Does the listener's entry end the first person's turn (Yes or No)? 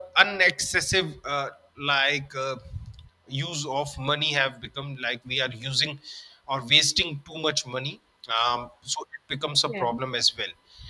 No